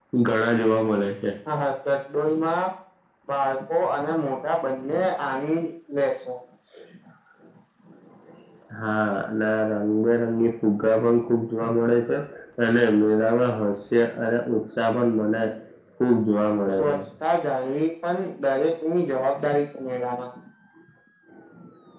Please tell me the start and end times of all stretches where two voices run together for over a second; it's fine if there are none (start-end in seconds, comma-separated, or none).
none